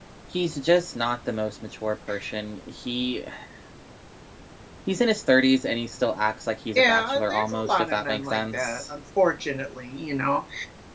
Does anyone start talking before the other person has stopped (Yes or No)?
Yes